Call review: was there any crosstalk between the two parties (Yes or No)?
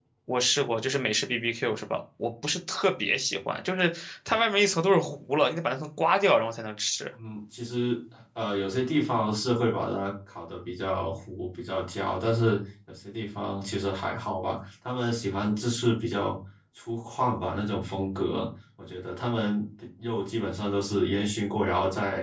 No